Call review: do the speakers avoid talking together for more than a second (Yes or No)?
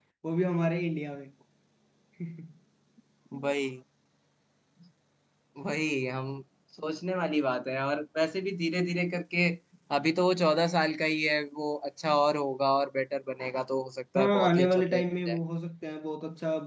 No